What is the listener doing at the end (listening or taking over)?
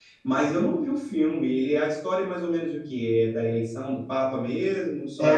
taking over